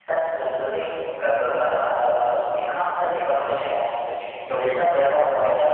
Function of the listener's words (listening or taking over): listening